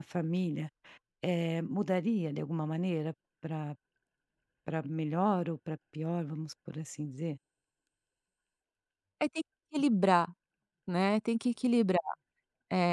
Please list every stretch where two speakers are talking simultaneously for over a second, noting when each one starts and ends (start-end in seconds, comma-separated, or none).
none